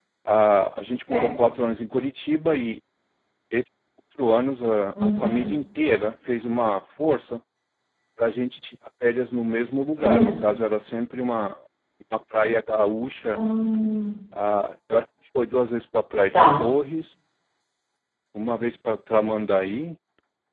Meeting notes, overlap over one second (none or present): none